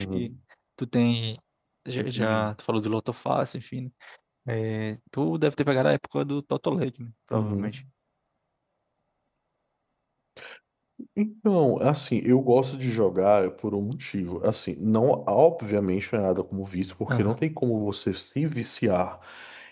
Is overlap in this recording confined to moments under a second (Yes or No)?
Yes